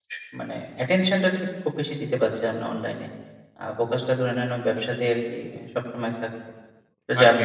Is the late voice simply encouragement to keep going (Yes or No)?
Yes